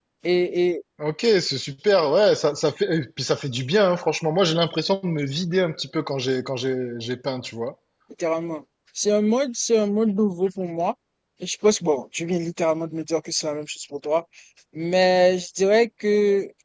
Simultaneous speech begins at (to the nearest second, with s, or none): none